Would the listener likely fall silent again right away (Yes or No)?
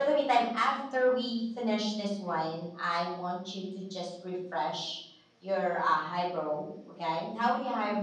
Yes